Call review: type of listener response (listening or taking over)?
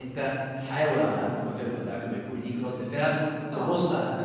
listening